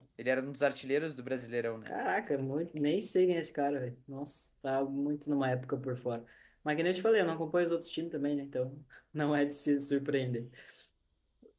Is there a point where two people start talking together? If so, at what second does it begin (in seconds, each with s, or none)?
none